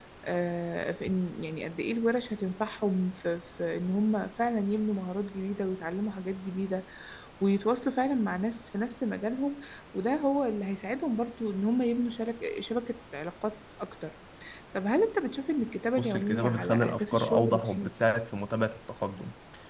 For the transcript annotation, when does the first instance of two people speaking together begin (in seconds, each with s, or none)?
16.0 s